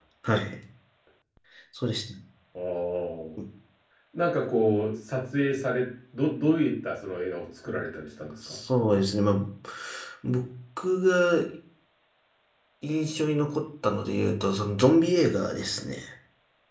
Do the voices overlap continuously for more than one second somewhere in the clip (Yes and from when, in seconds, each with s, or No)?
No